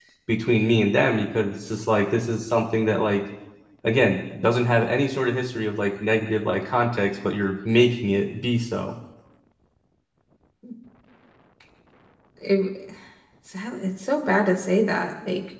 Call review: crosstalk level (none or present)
none